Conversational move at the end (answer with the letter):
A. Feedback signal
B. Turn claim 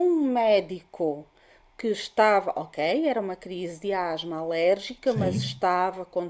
A